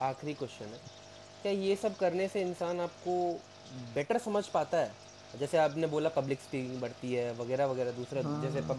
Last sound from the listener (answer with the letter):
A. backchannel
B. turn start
A